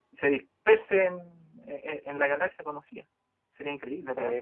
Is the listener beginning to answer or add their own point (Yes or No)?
Yes